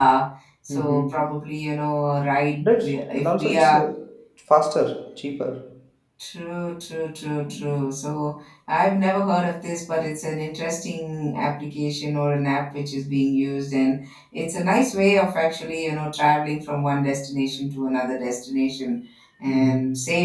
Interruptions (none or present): present